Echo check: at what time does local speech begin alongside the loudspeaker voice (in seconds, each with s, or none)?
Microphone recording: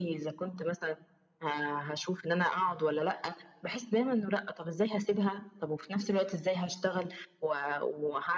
none